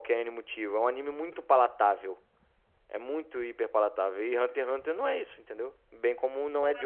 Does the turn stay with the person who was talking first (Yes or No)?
No